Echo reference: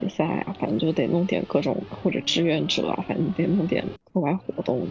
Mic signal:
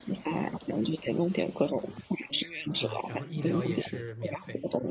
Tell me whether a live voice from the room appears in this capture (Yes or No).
Yes